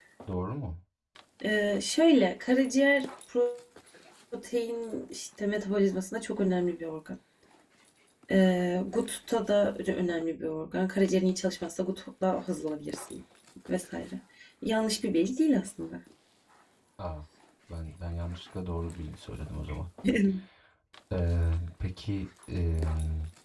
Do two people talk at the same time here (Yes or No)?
No